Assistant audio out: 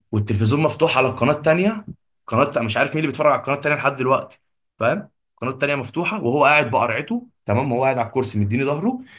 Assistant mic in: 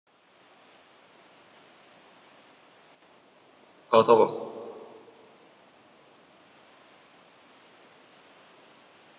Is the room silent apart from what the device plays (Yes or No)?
No